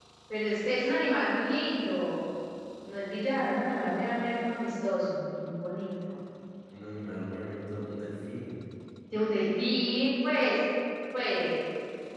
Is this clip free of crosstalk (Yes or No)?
Yes